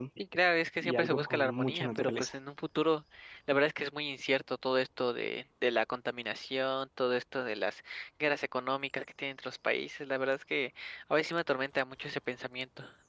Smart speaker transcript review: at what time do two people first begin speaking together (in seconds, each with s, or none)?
0.8 s